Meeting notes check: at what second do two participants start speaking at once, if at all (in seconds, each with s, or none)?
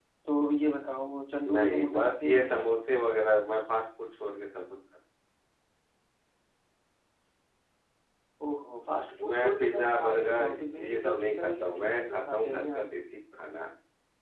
1.5 s